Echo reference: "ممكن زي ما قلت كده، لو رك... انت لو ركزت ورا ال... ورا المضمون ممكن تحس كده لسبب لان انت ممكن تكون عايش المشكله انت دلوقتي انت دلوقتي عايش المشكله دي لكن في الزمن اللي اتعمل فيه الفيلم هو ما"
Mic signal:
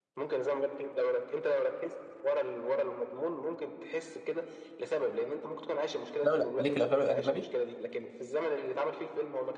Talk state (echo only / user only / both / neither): both